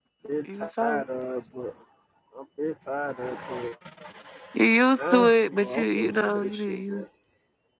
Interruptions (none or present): present